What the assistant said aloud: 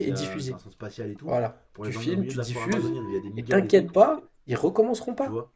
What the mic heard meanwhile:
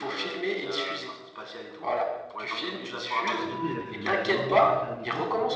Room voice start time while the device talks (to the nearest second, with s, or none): 3 s